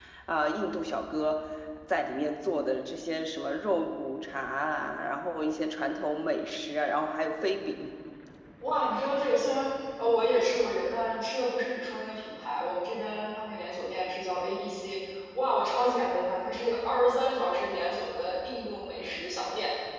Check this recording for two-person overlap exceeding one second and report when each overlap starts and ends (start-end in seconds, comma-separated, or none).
none